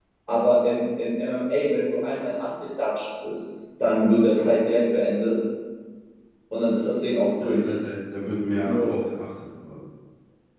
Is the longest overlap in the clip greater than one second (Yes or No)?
No